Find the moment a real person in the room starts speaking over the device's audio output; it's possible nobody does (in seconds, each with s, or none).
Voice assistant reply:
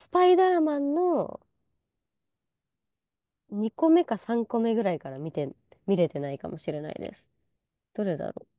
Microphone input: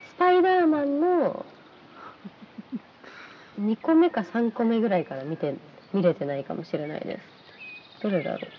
none